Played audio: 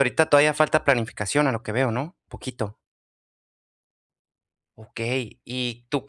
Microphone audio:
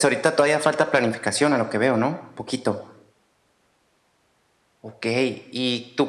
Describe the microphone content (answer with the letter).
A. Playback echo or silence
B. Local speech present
A